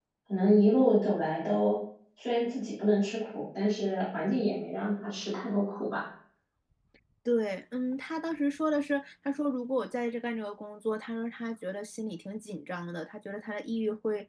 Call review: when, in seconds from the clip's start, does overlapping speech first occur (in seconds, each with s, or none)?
none